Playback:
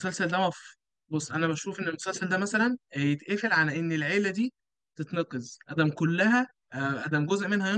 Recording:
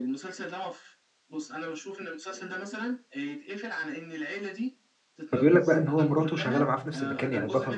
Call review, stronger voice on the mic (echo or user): user